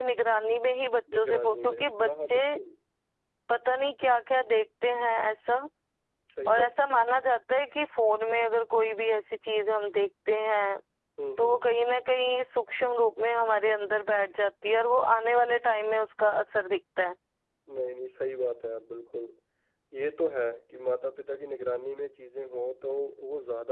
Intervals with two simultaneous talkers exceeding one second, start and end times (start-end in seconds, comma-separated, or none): 1.1-2.4